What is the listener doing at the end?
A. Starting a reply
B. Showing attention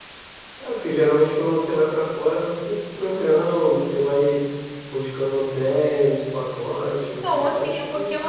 A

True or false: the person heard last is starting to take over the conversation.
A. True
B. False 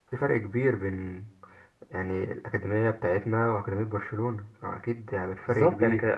A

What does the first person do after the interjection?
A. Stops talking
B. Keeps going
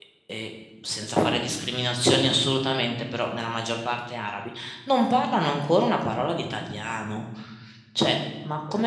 B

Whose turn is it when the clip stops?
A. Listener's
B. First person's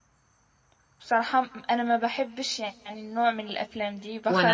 A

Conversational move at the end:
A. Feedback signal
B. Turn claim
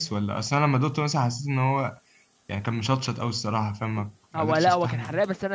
B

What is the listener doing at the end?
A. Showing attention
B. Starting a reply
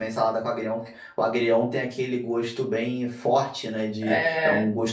A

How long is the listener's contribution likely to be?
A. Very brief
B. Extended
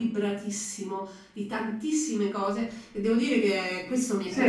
B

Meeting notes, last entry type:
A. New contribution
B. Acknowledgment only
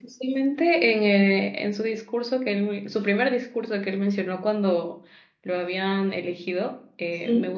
B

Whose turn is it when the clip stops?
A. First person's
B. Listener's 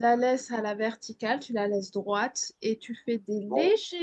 A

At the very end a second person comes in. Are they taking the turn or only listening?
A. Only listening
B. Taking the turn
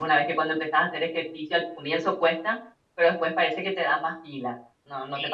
B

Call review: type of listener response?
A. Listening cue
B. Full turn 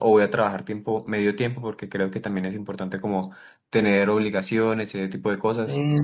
B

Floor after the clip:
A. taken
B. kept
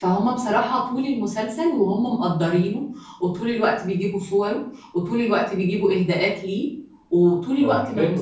B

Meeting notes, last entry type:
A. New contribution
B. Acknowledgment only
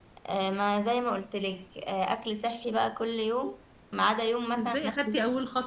A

